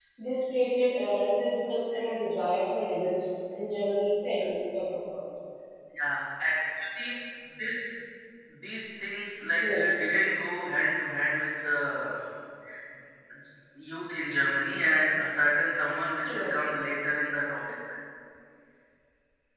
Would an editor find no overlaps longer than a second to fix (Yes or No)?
Yes